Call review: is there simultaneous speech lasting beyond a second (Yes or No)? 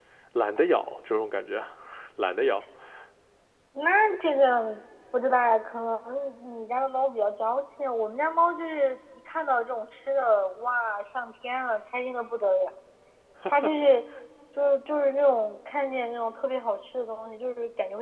No